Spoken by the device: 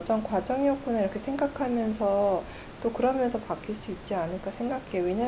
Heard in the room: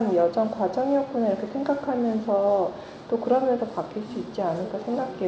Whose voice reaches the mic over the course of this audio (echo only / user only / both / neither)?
both